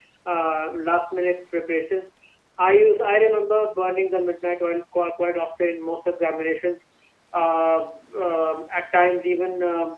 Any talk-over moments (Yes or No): No